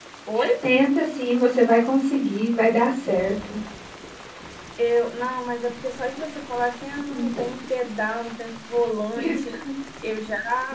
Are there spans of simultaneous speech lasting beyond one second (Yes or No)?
No